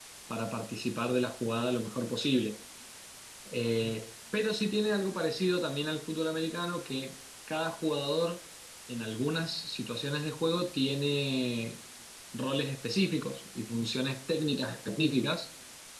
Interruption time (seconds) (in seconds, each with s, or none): none